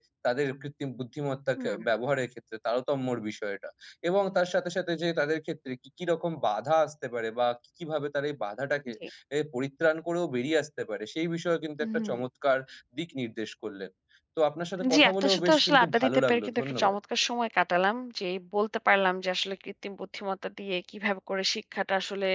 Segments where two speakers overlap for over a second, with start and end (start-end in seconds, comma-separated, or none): 14.9-17.0